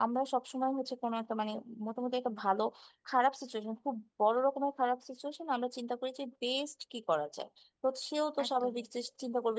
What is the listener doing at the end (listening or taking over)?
listening